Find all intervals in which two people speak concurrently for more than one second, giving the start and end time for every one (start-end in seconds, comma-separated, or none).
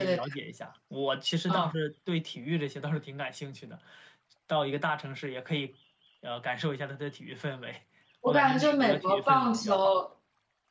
8.3-10.0